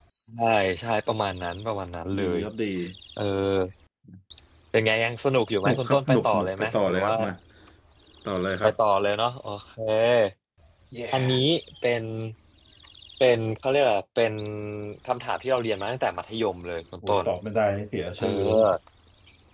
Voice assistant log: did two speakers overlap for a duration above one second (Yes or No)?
Yes